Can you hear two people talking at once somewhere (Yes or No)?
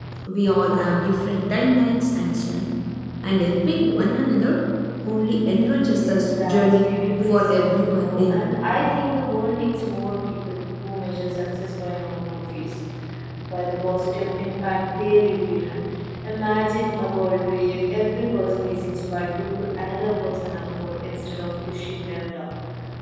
Yes